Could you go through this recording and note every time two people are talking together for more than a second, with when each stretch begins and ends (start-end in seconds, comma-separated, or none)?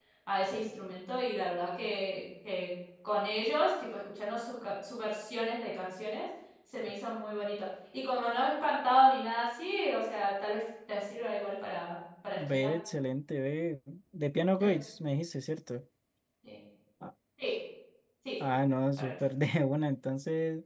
none